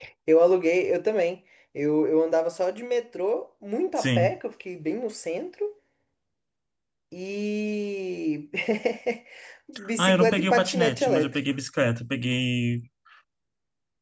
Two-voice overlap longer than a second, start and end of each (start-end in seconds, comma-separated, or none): 10.0-11.4